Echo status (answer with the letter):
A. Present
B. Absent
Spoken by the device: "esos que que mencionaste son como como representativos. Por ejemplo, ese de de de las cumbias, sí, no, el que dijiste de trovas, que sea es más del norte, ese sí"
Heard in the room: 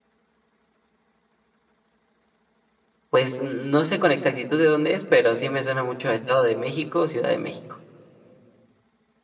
B